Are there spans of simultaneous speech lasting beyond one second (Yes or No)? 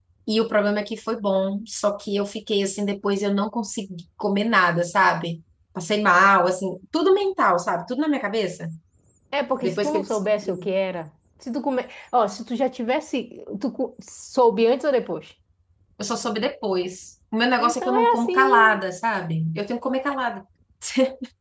Yes